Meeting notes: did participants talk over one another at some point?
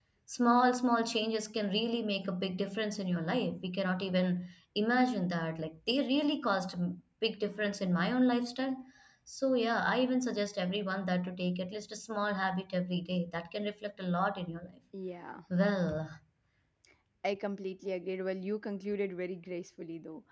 No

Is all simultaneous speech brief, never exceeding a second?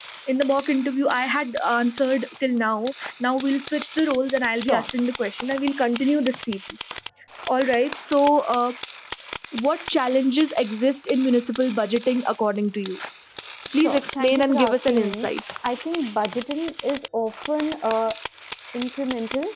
No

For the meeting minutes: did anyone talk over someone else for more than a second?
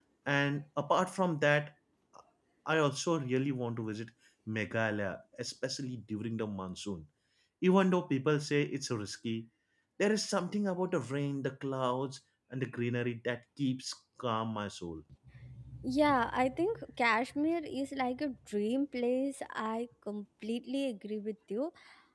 No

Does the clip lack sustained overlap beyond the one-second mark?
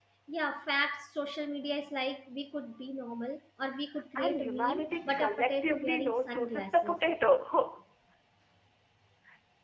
No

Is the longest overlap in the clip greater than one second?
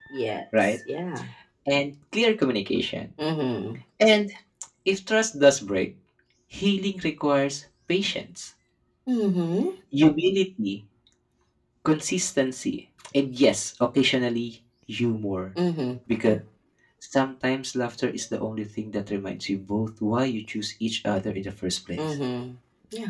No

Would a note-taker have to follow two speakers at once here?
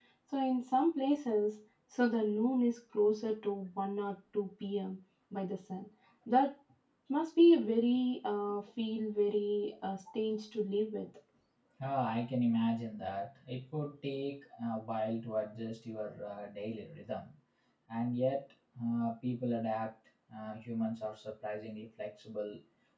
No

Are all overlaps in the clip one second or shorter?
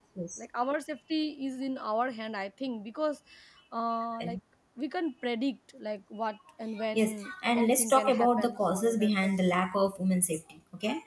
No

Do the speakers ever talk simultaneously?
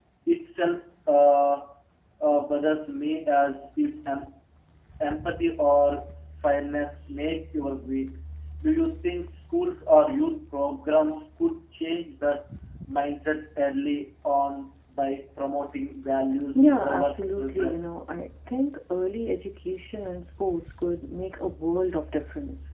Yes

